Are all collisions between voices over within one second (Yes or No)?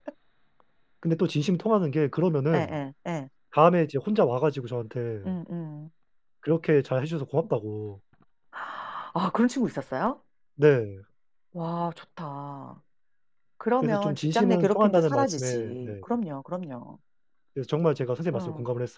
No